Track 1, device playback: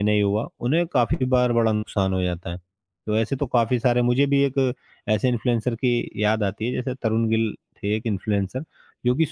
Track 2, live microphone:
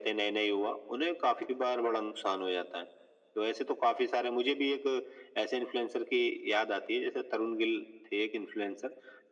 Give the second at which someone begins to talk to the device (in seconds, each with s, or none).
none